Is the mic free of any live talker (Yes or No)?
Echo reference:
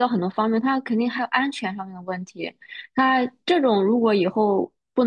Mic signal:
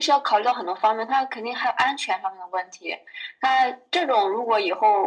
Yes